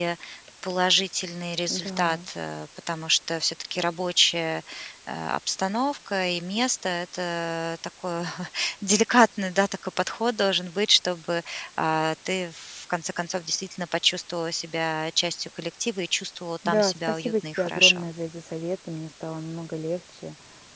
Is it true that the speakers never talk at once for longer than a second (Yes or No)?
No